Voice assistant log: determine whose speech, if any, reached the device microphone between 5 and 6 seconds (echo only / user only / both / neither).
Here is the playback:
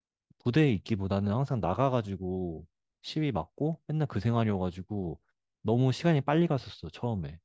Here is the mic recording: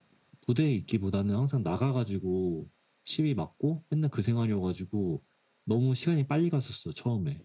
echo only